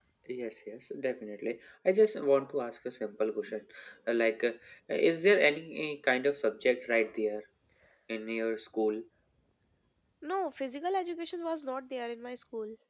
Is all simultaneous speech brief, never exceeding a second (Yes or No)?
Yes